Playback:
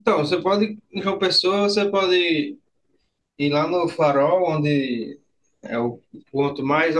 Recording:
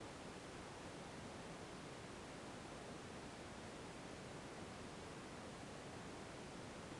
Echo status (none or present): none